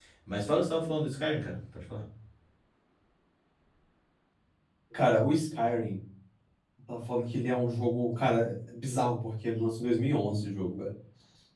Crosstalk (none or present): none